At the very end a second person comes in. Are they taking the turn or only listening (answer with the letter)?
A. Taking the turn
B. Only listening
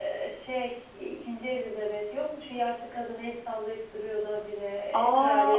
A